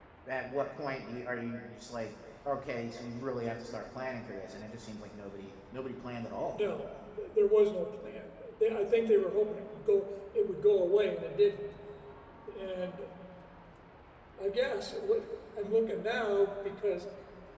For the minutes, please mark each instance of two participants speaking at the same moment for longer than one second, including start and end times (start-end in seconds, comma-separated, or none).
none